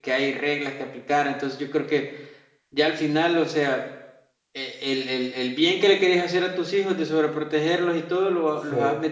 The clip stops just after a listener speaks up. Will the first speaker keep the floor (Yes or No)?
Yes